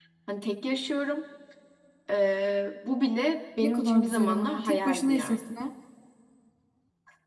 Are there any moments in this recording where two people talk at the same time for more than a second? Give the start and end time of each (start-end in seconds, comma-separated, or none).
3.6-5.4